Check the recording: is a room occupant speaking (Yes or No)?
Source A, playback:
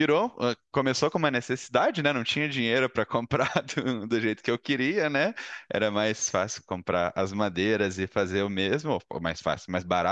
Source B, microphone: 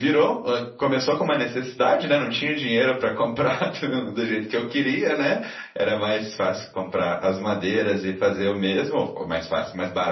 No